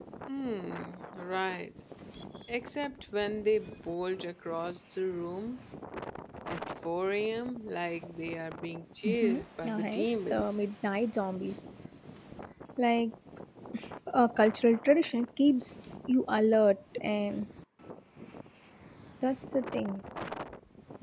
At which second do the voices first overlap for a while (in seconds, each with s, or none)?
9.0 s